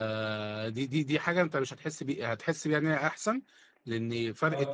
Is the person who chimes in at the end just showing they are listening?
Yes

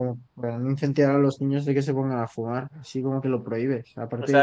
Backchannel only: No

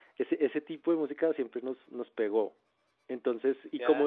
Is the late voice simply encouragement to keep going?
Yes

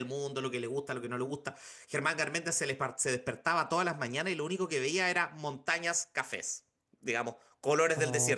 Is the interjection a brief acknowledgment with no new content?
No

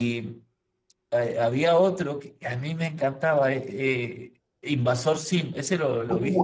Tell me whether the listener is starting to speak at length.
Yes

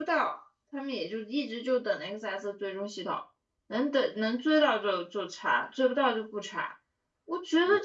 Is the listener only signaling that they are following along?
Yes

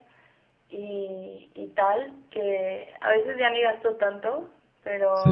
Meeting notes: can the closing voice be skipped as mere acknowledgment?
Yes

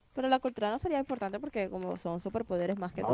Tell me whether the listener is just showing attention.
No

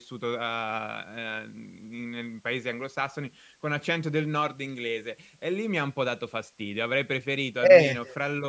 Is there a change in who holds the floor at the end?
No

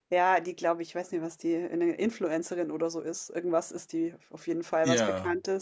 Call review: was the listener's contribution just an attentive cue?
Yes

